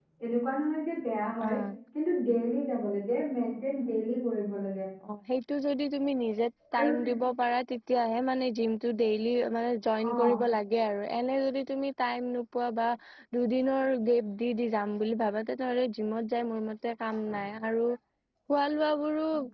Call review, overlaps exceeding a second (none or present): none